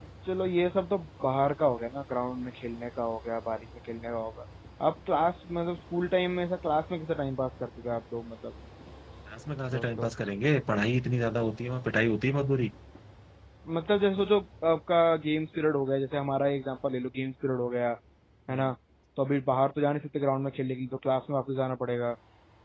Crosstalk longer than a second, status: none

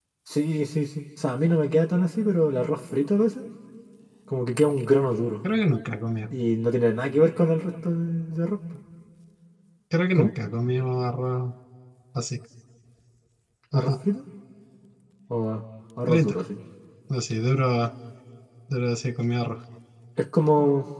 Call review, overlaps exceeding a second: none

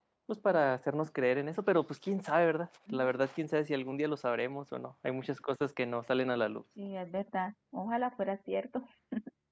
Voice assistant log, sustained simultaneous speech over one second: none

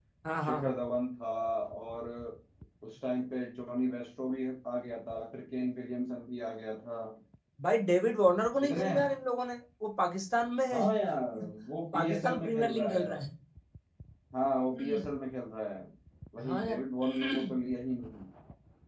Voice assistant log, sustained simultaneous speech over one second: present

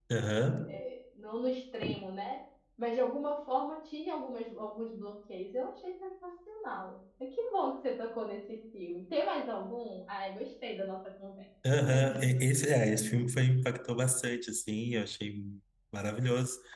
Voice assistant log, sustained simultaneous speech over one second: none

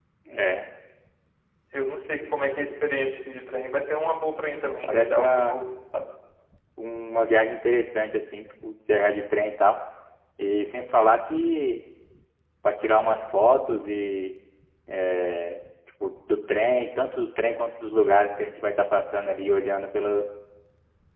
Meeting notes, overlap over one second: present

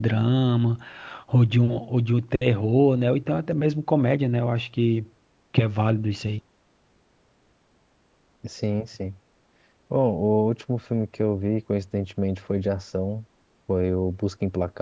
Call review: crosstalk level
none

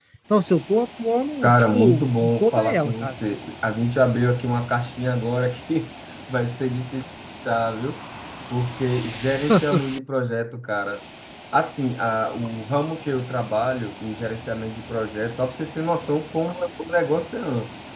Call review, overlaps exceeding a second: present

